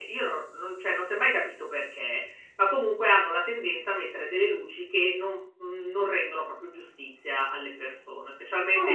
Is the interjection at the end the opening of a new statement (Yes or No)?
No